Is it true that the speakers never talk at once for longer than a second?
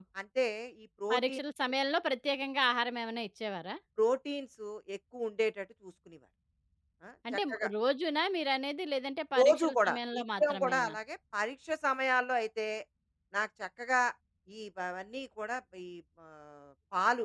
No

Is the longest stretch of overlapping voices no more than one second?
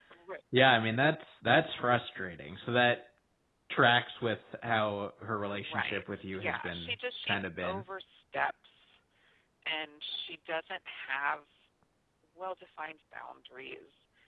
No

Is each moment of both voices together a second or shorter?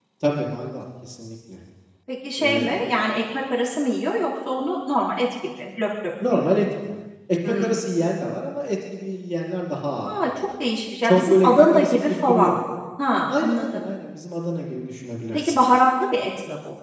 No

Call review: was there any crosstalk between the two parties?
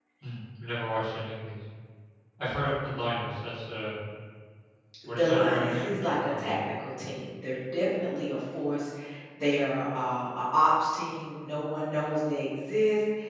Yes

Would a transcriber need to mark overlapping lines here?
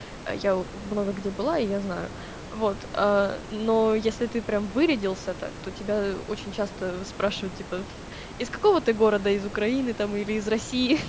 No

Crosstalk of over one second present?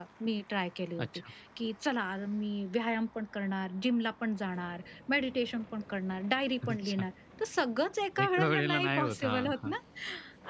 Yes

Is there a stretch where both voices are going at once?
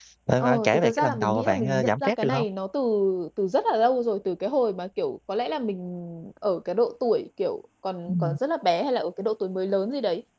Yes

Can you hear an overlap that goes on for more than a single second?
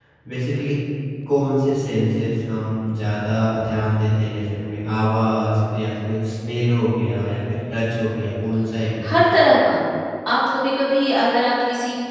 No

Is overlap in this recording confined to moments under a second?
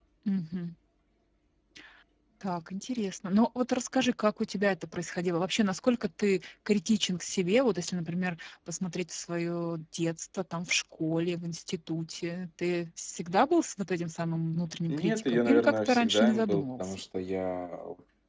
No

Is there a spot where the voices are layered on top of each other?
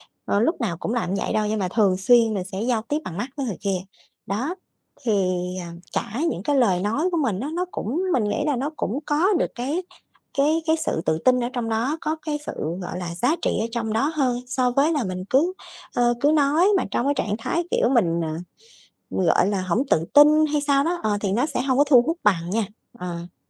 No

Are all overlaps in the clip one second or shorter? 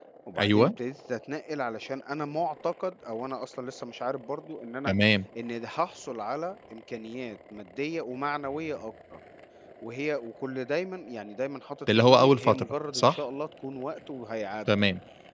No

